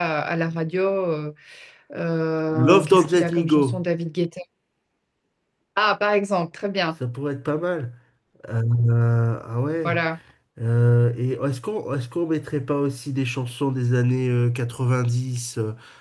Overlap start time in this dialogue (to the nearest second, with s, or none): 3 s